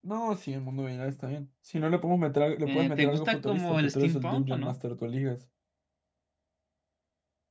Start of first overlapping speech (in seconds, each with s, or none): 2.6 s